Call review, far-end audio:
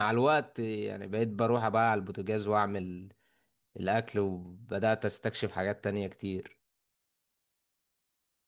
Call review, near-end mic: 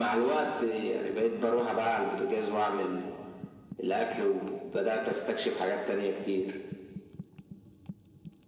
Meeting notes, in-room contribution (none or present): none